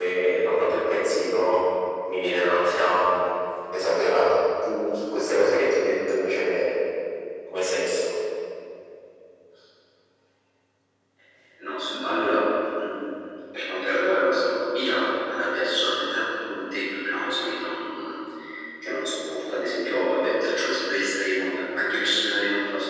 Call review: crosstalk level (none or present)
none